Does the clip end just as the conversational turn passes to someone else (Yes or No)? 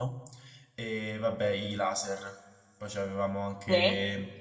No